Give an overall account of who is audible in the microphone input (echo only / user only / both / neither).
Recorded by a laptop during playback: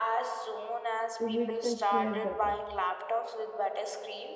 both